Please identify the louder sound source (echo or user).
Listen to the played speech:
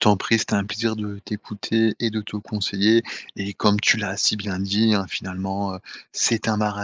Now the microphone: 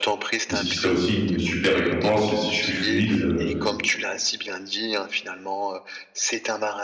user